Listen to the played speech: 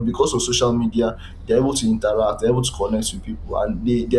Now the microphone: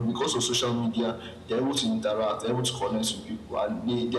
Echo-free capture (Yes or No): No